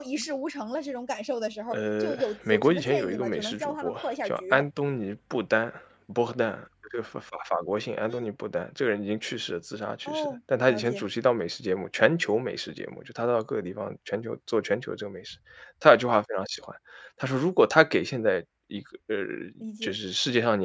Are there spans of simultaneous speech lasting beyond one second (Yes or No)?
Yes